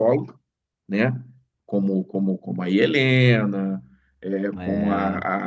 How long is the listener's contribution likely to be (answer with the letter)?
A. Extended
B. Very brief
B